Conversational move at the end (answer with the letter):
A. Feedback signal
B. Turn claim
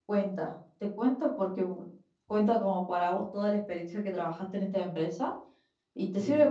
A